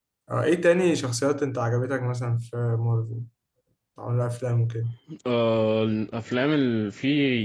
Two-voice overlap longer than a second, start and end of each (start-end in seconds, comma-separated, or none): none